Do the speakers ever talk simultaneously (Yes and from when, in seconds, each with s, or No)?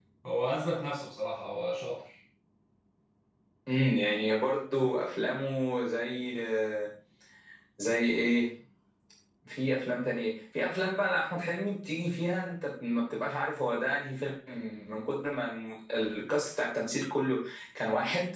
No